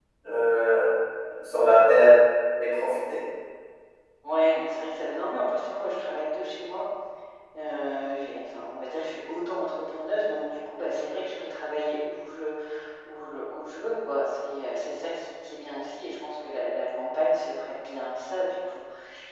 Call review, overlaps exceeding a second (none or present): none